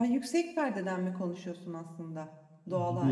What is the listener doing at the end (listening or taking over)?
taking over